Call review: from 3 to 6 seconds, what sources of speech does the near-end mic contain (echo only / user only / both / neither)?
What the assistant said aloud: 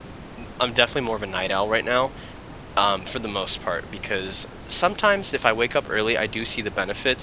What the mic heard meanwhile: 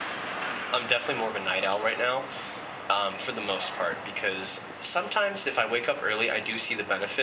echo only